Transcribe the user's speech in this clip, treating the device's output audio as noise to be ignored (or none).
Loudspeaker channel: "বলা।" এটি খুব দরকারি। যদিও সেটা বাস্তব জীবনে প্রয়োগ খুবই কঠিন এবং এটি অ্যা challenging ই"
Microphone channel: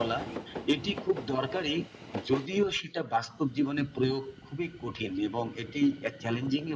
none